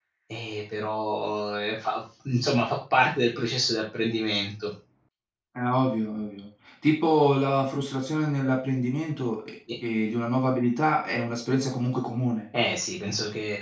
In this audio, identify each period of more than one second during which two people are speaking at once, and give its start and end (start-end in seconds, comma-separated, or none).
none